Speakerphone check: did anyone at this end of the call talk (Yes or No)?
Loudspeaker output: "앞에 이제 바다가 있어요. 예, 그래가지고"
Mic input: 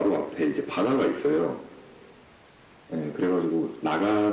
No